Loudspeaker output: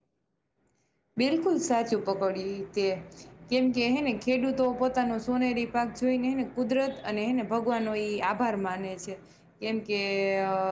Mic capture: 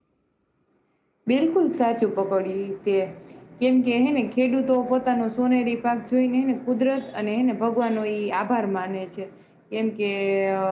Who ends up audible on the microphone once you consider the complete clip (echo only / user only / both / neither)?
echo only